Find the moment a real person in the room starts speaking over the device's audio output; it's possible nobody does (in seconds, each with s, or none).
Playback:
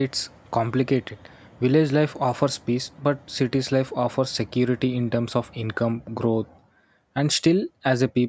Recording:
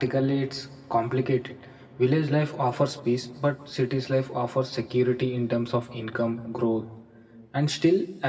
none